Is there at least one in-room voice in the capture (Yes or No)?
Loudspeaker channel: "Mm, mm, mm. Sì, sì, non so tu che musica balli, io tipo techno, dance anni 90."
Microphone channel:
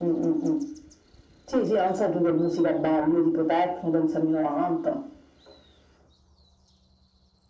No